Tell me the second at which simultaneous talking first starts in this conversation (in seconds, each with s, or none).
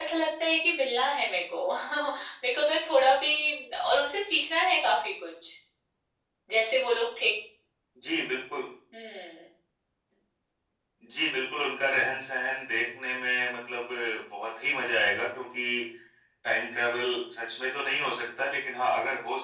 none